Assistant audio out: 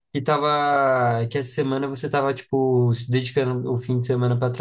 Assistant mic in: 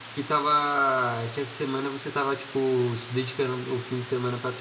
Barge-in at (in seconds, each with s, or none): none